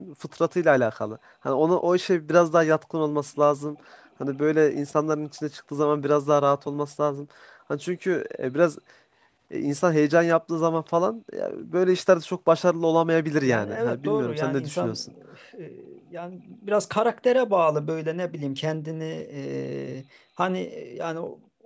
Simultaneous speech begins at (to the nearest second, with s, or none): 13 s